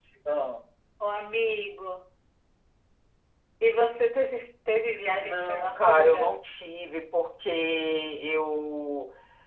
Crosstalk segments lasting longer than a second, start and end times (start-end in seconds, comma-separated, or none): 5.0-6.3